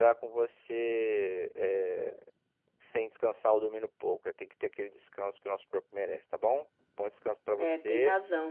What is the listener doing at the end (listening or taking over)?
taking over